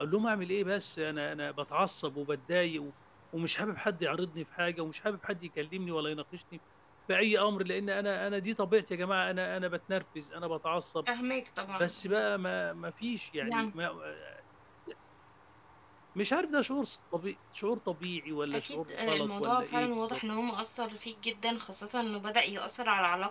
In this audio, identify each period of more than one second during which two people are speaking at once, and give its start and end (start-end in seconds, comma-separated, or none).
18.5-20.2